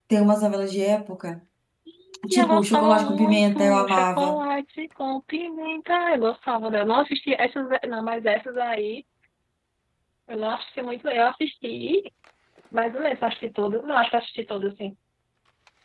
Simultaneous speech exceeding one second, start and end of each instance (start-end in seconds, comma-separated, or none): 2.3-4.4